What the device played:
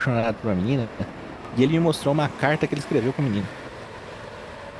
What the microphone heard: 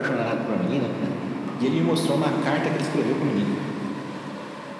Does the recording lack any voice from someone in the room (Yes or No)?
Yes